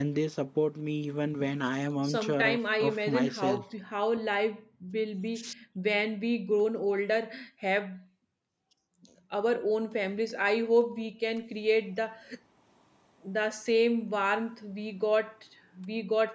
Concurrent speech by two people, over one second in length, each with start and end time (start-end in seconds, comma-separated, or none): 2.1-3.5